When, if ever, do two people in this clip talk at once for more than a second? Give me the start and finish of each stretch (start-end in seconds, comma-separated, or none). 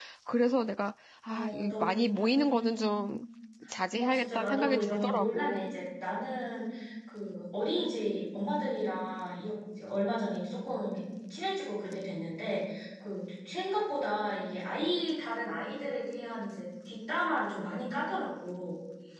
1.3-2.8, 4.0-5.8